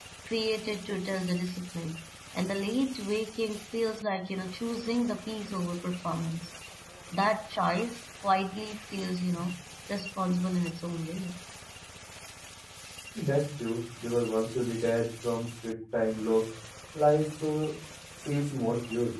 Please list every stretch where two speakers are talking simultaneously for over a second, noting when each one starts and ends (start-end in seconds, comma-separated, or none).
none